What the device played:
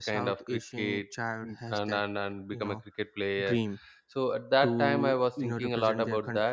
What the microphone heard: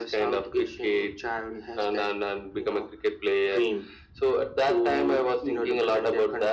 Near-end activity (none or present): none